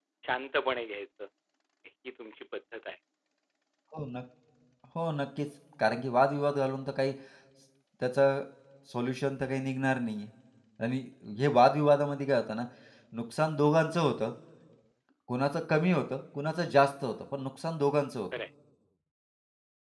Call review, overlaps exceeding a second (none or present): none